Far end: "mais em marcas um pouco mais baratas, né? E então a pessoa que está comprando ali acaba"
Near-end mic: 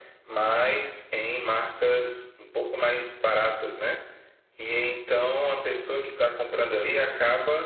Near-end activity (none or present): none